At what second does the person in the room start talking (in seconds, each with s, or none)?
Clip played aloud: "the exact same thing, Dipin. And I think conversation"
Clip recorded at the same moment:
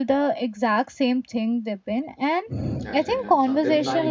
2.8 s